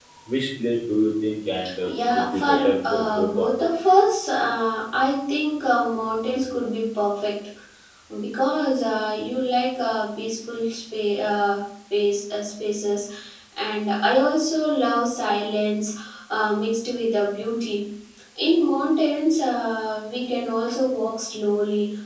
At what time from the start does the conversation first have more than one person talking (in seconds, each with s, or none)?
1.6 s